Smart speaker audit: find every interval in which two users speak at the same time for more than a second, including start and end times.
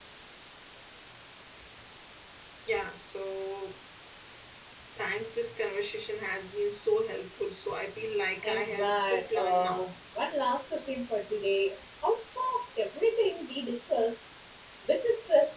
8.4-9.8

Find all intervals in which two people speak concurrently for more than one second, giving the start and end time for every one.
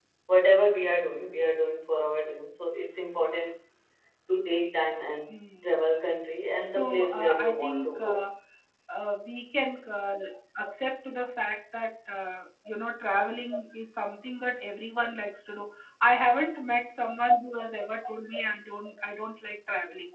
6.7-8.1

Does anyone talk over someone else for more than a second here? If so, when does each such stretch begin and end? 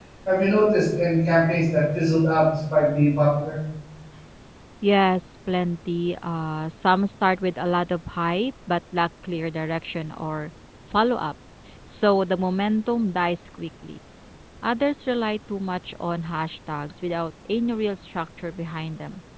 none

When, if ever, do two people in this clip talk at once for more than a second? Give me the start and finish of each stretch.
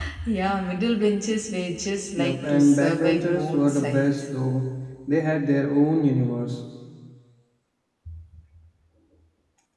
2.2-4.2

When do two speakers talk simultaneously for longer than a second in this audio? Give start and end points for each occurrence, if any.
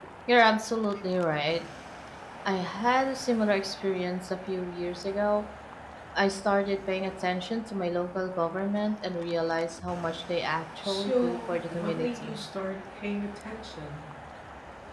10.8-12.3

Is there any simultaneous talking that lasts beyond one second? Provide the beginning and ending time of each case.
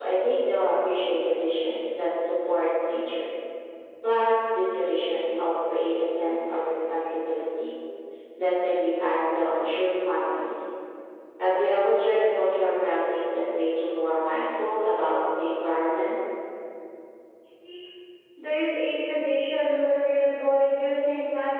none

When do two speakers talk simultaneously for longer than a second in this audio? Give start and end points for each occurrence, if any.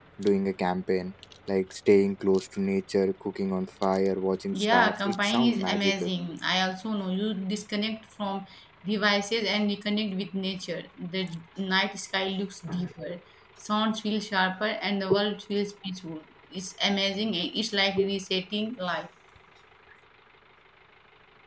4.5-6.1

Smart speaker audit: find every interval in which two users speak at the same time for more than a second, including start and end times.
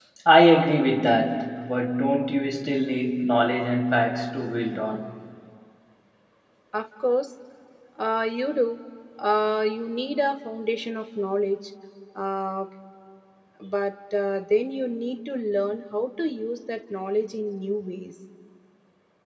none

